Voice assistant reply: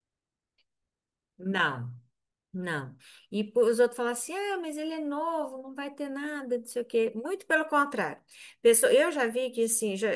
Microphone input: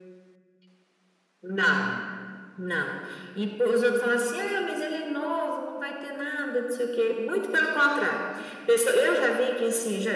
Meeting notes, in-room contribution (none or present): none